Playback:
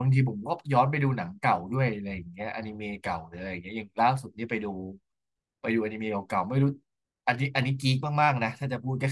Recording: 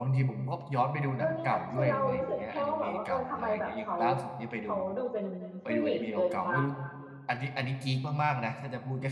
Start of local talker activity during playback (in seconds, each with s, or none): 1.2 s